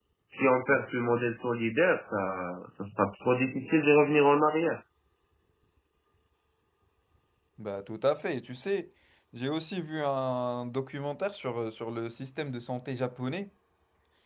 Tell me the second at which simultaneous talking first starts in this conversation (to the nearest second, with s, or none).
none